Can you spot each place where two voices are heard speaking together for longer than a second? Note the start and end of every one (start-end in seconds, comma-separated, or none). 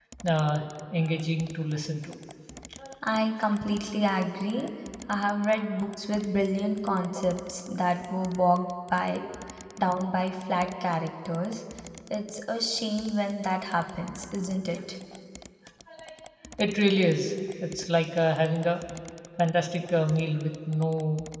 none